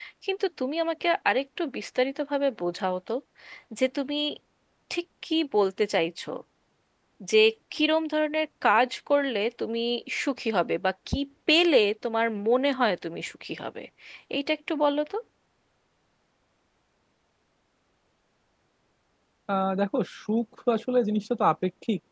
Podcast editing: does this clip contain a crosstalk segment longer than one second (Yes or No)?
No